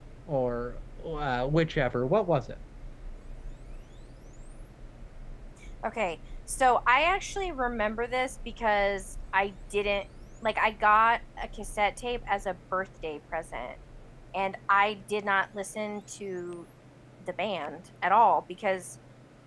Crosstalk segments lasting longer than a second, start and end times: none

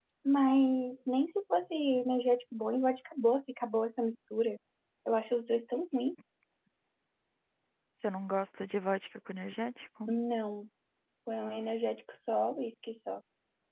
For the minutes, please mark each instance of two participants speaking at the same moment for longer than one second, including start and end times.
none

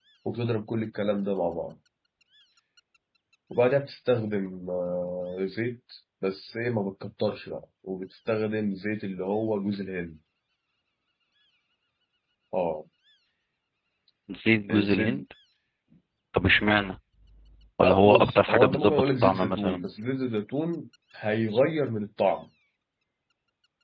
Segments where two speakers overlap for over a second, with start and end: 17.8-19.8

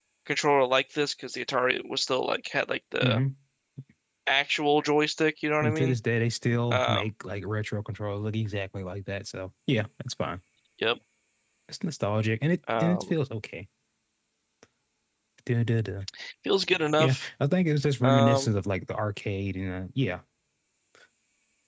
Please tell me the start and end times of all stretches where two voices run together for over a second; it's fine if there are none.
none

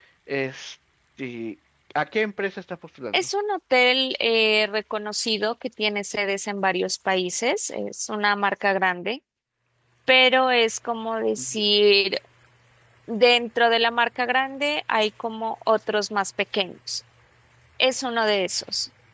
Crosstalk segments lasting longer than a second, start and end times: none

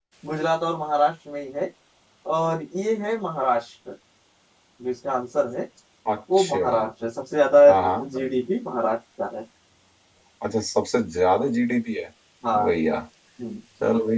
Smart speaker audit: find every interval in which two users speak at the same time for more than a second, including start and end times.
none

